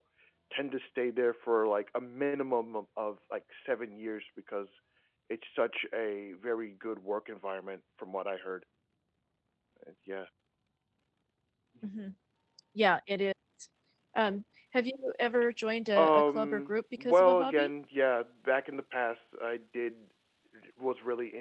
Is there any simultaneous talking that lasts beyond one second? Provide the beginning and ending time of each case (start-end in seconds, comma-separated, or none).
15.9-17.7